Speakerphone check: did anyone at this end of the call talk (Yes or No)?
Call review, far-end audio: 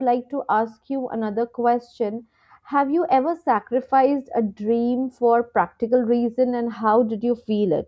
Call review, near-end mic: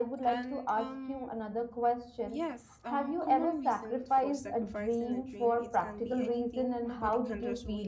Yes